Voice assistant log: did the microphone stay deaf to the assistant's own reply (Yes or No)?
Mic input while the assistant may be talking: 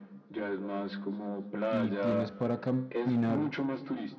No